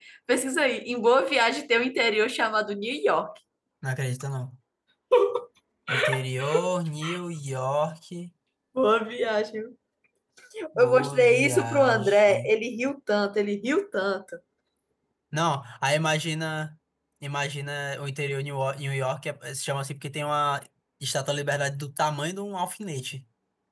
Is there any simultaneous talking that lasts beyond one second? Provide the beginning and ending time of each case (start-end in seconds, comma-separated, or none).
10.8-12.5